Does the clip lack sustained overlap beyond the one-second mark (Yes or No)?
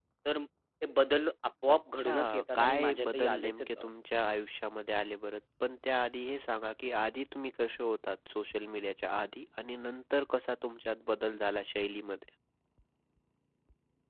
No